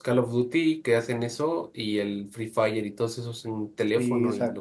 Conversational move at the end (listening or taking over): taking over